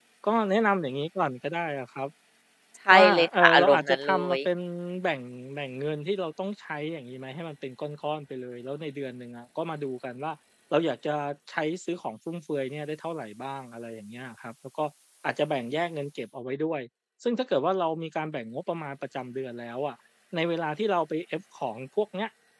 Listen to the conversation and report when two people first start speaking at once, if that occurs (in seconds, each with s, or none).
2.9 s